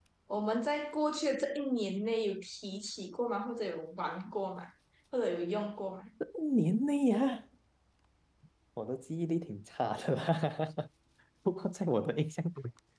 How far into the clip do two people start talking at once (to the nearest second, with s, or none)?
none